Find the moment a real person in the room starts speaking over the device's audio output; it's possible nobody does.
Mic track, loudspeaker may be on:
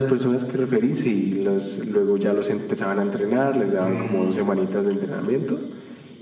3.8 s

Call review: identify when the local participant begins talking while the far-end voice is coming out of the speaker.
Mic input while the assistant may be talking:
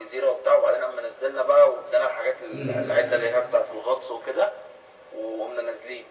2.5 s

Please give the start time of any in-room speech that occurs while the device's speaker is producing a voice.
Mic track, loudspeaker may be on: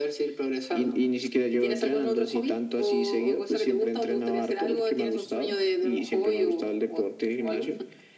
none

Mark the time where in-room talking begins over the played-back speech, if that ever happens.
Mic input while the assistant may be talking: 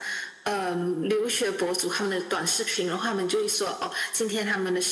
none

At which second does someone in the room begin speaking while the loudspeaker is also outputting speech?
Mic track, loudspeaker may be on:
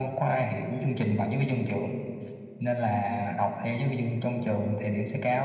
none

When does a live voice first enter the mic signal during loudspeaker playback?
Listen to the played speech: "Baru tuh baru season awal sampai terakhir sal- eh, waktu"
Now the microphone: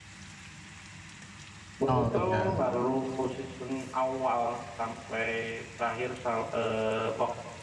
1.9 s

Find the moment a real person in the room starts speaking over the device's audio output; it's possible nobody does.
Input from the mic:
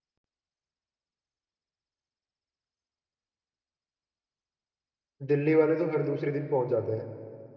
5.3 s

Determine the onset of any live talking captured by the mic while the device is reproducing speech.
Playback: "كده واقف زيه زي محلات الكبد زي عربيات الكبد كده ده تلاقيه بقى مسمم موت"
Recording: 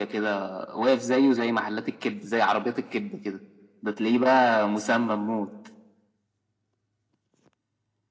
none

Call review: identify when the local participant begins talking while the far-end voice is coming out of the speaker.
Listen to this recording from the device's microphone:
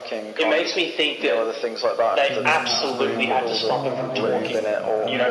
2.3 s

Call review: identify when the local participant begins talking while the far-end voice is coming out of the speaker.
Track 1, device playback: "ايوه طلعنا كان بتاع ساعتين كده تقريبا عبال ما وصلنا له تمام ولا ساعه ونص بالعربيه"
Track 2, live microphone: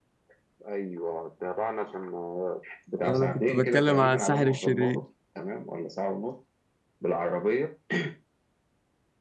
3.0 s

